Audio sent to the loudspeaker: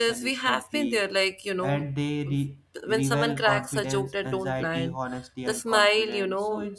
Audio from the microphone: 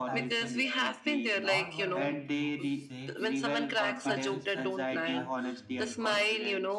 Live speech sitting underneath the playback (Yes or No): Yes